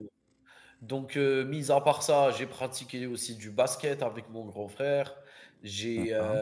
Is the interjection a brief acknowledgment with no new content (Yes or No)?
Yes